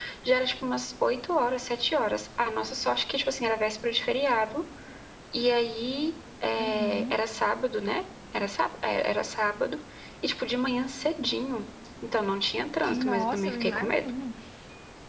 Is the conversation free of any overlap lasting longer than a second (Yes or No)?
No